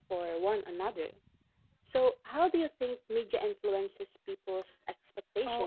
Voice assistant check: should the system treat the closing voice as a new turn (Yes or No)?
Yes